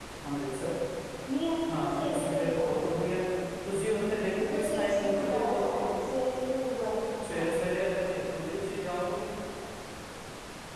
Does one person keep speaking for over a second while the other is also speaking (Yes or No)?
Yes